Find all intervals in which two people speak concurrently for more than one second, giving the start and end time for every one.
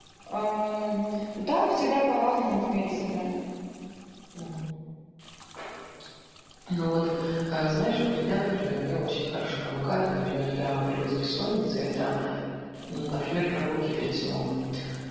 none

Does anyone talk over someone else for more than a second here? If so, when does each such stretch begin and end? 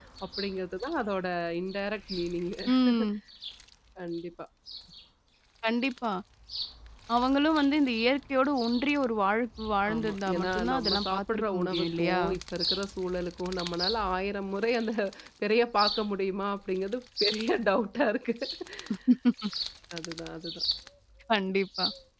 9.9-12.2

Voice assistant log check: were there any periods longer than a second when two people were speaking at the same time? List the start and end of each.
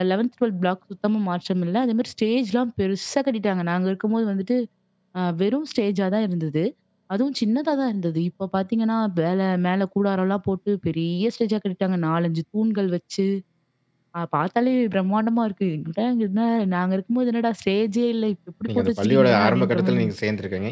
18.7-20.1

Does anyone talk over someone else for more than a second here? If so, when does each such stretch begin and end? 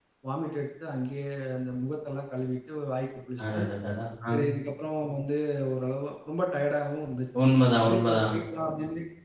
none

